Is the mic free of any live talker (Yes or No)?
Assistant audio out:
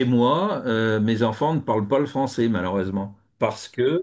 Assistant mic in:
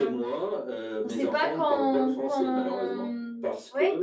No